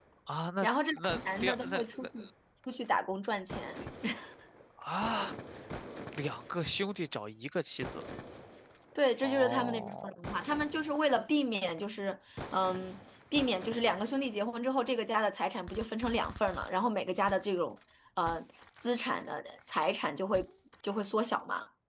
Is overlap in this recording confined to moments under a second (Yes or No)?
No